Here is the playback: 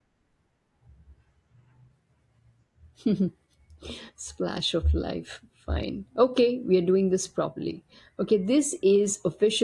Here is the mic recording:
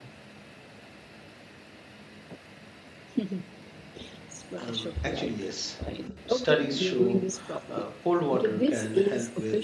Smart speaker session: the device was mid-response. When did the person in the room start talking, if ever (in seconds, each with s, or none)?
4.6 s